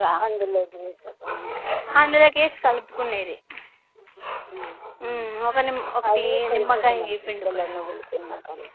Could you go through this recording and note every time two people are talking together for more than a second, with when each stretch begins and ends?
6.1-7.9

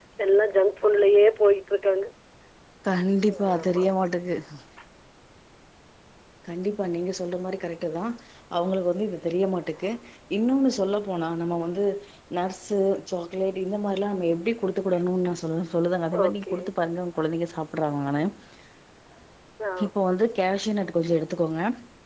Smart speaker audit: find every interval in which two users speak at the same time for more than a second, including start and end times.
none

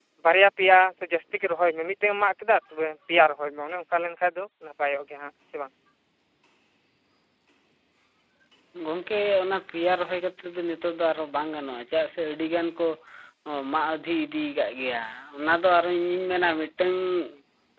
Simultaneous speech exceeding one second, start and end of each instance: none

